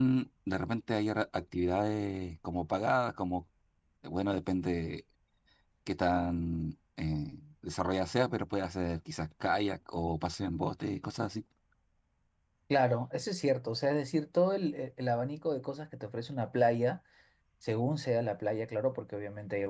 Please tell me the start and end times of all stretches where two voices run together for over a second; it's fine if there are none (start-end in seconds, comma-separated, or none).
none